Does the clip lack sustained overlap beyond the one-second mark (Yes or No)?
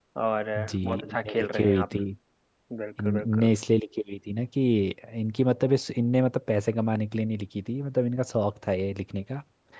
No